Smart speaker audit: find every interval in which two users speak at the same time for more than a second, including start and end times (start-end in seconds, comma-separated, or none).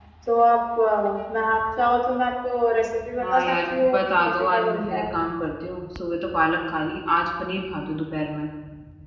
3.2-5.1